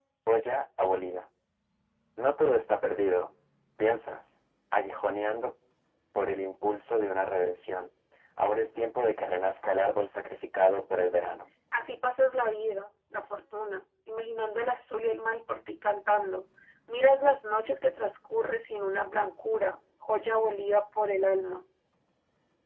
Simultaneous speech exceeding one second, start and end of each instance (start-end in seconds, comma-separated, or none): none